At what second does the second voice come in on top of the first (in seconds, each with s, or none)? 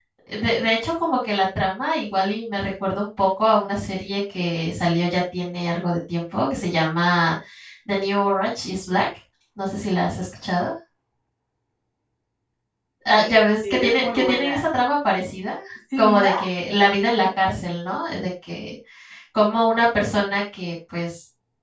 13.1 s